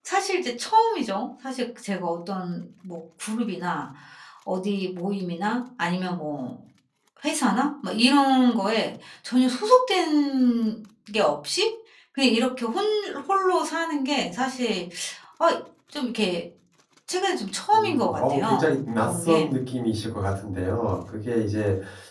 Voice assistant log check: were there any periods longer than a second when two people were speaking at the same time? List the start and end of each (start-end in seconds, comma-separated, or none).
17.7-19.6